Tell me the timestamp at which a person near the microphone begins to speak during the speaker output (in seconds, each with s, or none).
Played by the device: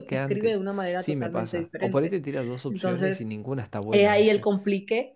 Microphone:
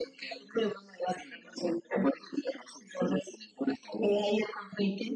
none